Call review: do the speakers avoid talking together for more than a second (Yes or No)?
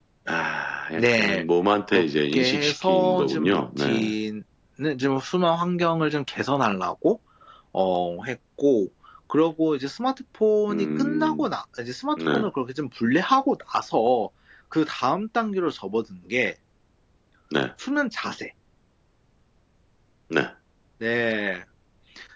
No